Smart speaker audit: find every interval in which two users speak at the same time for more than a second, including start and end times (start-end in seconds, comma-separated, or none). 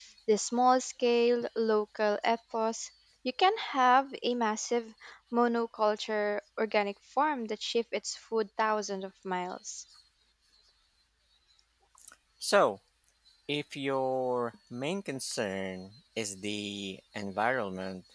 none